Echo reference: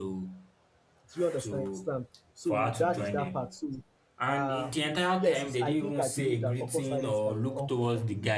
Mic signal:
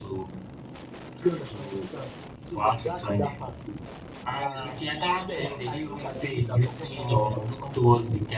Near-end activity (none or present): present